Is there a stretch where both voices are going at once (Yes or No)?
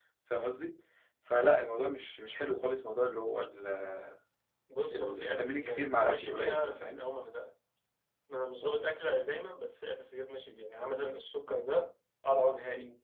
Yes